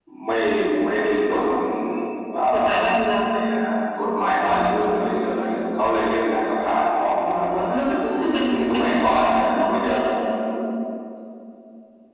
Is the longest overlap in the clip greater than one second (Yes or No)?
Yes